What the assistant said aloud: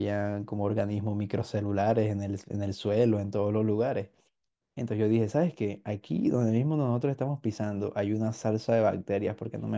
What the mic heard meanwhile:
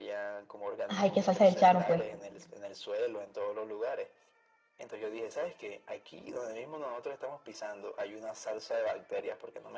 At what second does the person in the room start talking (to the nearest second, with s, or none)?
1 s